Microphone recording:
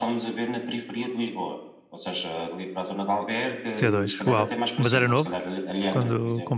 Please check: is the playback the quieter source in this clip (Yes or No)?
Yes